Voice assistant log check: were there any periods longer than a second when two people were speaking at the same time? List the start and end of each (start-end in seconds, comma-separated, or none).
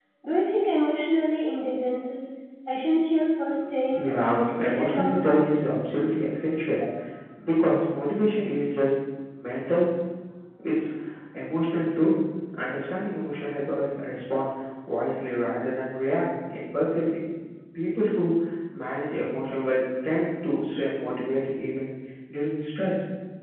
4.0-5.5